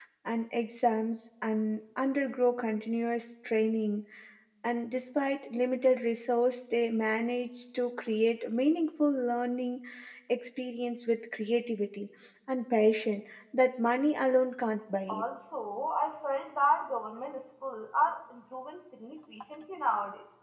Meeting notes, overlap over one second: none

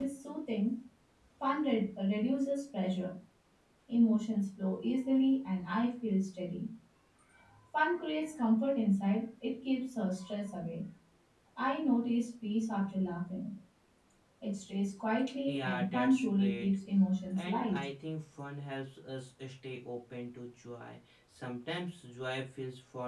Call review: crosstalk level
present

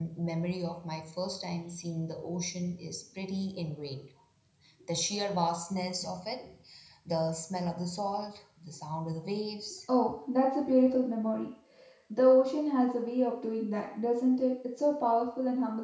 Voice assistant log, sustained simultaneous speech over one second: none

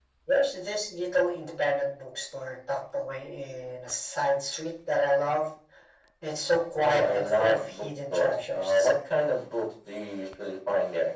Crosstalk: present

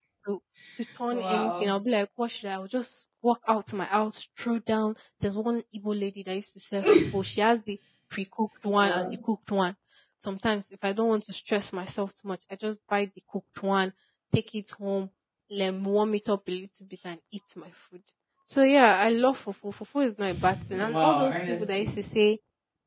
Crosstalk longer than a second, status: present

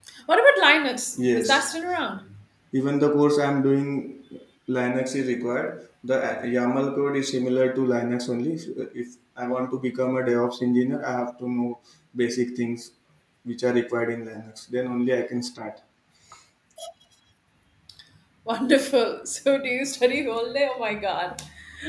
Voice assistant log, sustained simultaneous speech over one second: none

